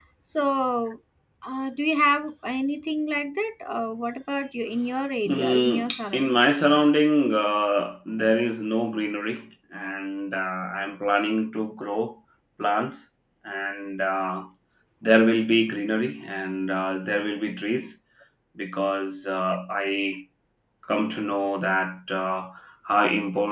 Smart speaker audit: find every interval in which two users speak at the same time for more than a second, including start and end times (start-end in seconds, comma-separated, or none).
5.2-6.5